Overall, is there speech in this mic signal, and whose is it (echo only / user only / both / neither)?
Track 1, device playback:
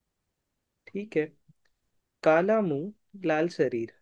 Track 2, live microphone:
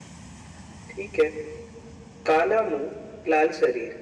echo only